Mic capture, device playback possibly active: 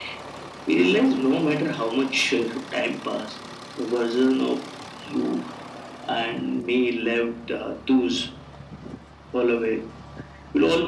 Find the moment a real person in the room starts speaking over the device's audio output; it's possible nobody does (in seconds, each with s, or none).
none